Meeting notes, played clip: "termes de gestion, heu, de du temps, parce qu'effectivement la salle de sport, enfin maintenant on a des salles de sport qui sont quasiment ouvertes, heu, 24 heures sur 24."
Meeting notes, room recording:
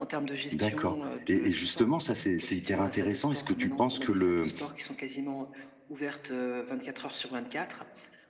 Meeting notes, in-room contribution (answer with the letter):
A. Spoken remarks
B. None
A